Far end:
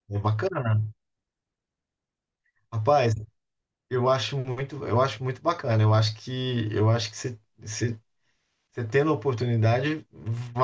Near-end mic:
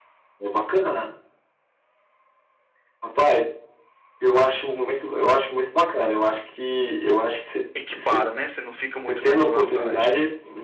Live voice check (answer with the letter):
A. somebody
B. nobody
A